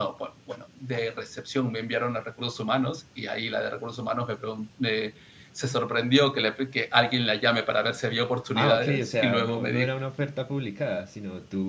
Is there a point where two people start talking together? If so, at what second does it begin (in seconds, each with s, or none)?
8.6 s